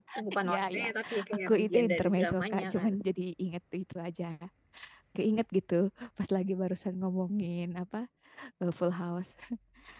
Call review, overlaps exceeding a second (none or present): present